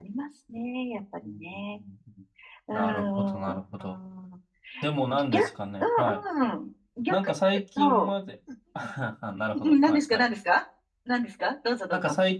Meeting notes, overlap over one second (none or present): present